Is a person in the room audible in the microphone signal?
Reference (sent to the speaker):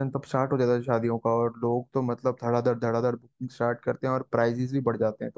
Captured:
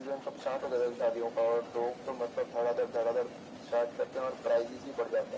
No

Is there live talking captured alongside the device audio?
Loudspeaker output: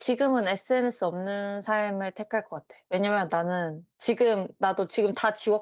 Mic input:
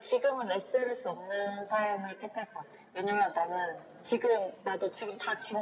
No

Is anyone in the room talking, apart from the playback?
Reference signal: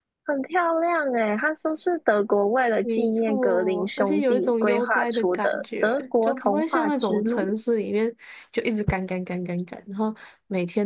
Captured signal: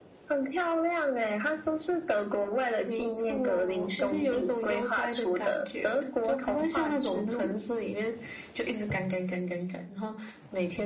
No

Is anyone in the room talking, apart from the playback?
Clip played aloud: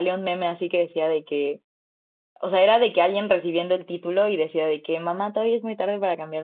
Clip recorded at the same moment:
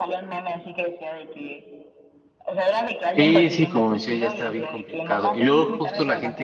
Yes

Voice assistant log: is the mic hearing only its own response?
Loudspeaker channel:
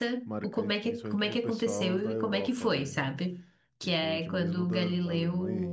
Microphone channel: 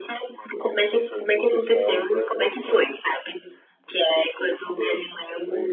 Yes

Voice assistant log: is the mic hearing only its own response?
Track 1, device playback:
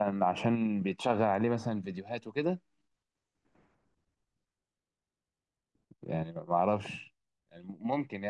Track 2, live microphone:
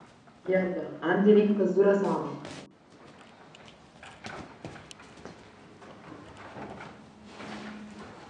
No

